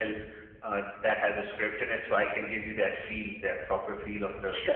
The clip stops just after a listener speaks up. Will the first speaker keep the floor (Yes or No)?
No